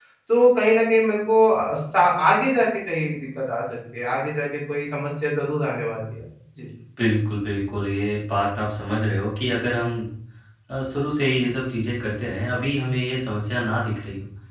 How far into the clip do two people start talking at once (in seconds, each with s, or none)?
none